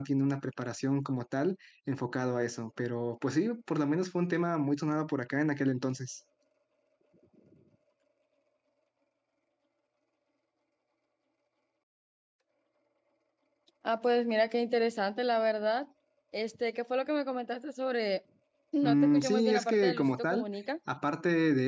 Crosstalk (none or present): present